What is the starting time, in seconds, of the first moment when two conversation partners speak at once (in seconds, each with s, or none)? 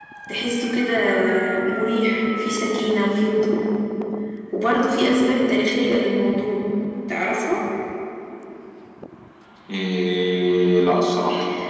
none